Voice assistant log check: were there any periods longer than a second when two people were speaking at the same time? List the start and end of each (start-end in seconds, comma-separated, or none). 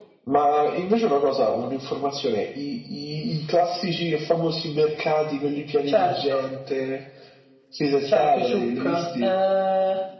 8.1-9.3